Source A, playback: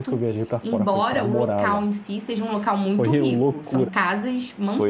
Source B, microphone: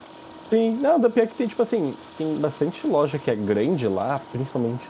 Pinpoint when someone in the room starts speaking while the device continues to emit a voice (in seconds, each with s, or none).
0.5 s